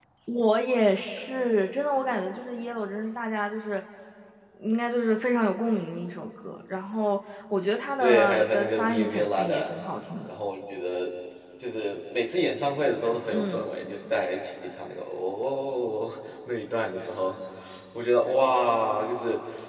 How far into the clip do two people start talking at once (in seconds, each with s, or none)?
8.0 s